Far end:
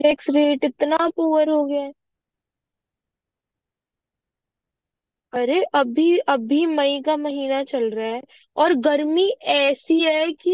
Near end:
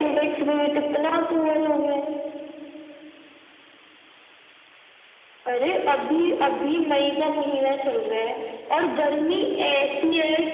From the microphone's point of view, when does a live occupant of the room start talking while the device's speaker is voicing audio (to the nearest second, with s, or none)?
none